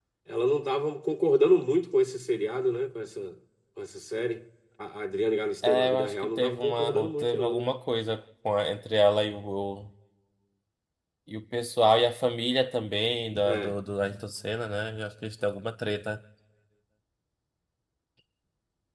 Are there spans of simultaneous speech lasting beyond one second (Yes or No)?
Yes